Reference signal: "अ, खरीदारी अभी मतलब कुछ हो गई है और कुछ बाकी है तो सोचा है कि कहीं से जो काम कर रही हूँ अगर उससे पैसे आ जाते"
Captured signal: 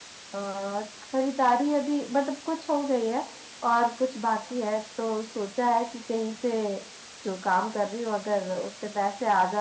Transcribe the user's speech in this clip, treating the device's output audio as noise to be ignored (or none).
none